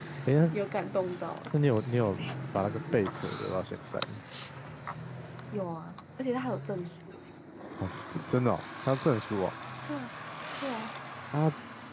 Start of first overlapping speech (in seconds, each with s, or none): none